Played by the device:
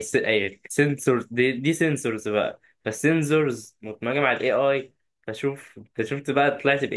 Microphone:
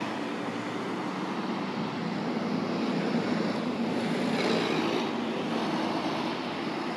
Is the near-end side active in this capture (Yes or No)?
No